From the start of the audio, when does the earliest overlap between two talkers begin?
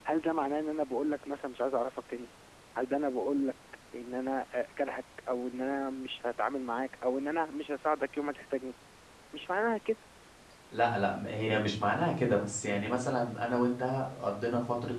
none

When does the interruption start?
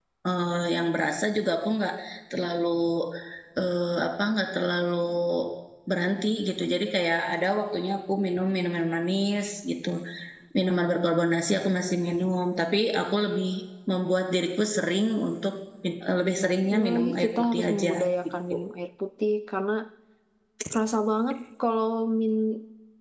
17 s

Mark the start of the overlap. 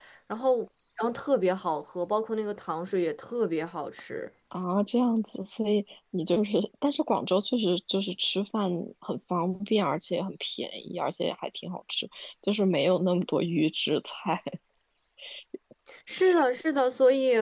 none

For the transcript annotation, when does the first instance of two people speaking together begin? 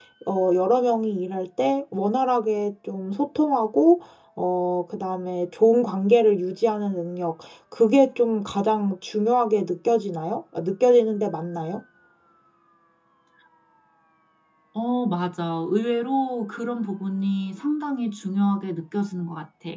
none

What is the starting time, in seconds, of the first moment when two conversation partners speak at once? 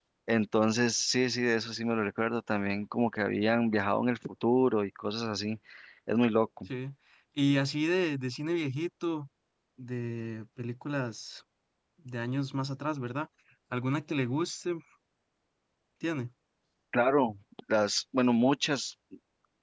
none

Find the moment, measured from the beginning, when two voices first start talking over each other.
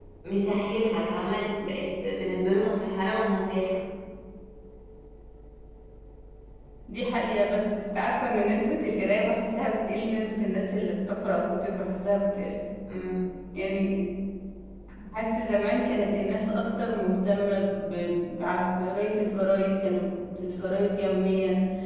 none

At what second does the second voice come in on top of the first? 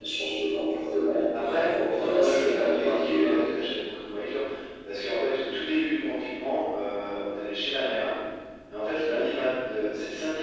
1 s

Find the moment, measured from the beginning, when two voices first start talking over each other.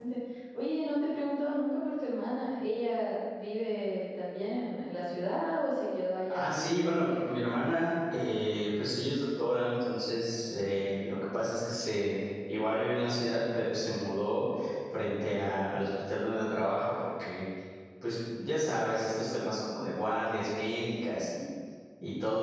6 s

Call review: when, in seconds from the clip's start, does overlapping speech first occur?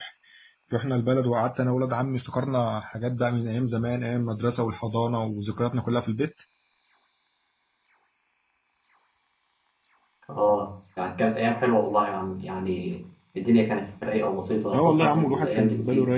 15 s

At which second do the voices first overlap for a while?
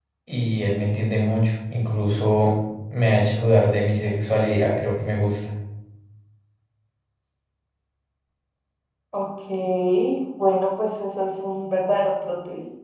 none

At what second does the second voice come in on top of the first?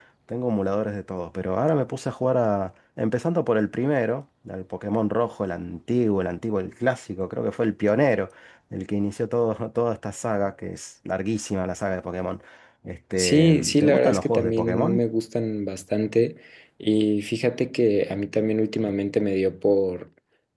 13 s

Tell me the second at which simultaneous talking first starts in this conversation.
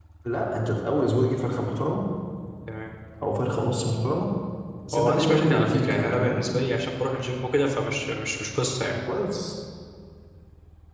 5 s

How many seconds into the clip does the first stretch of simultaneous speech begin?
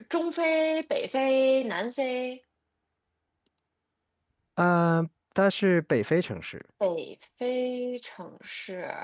none

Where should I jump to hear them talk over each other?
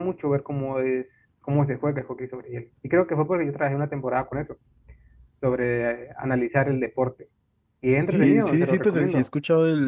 8 s

